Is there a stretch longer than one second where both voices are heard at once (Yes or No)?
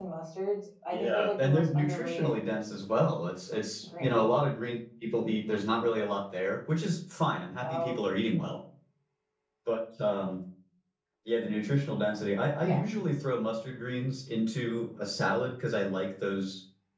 Yes